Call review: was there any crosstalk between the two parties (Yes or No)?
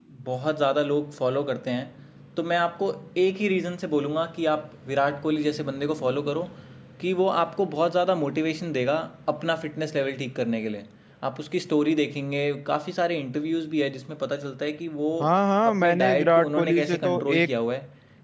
Yes